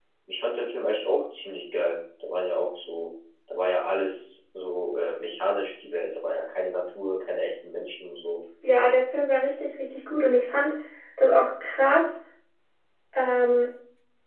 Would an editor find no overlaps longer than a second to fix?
Yes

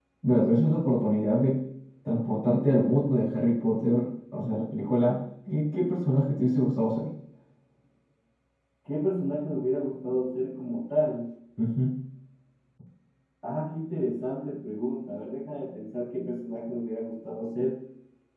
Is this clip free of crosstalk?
Yes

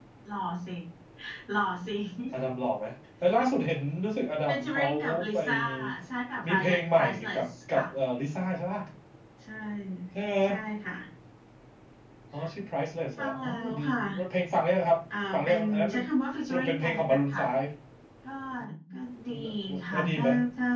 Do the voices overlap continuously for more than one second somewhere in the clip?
Yes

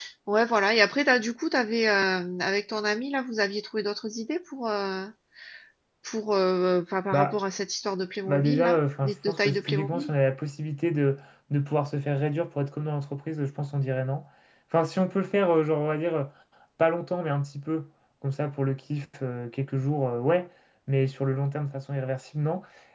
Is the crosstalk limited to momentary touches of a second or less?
No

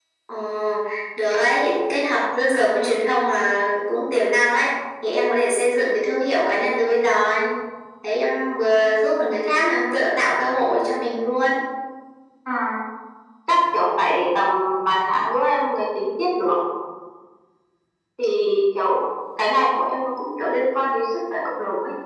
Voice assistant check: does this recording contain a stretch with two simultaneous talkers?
No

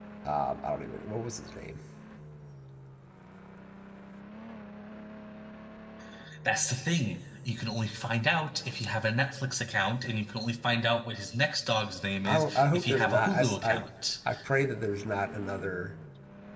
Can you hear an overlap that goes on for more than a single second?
Yes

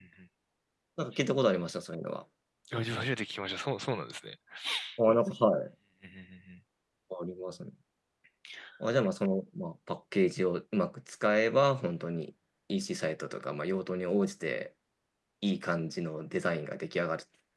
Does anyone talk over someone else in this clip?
No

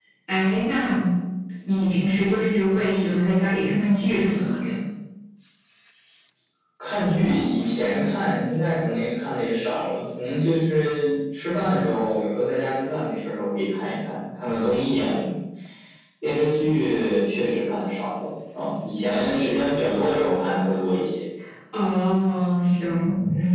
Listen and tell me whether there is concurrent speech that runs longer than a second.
No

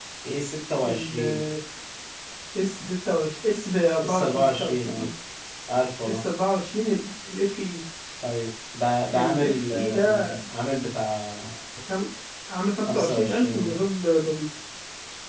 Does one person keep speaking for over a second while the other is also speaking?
Yes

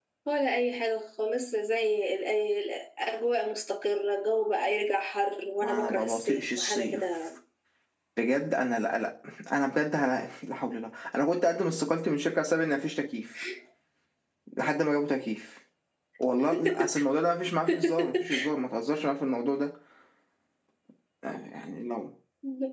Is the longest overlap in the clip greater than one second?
Yes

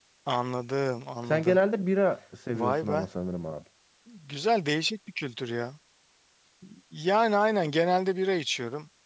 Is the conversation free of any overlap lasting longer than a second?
Yes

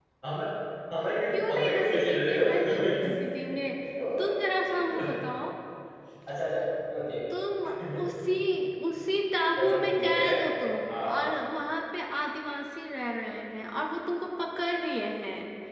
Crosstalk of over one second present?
Yes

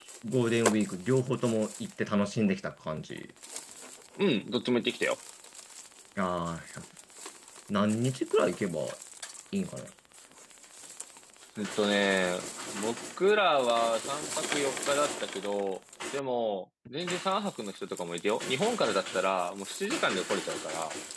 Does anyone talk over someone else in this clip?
No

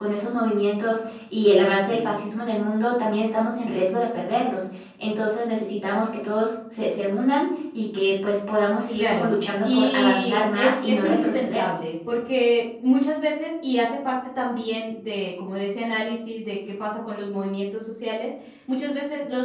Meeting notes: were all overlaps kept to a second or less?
No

